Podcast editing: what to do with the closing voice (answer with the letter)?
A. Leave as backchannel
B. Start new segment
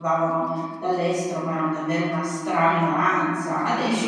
B